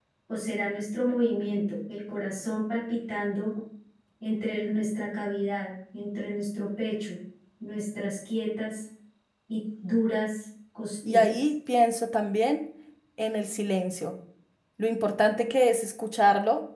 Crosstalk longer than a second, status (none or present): none